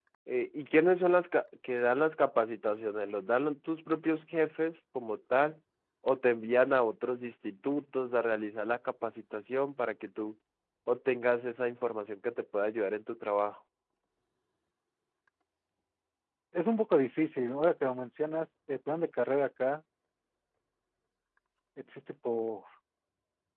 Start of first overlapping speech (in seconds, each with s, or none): none